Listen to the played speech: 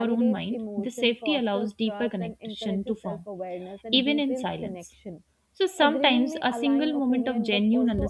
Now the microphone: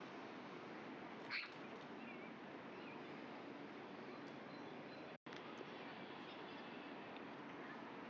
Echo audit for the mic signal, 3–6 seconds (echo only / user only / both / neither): neither